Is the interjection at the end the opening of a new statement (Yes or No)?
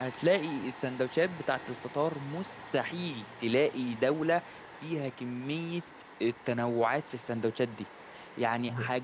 No